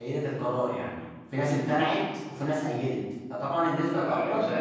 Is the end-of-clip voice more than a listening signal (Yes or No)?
Yes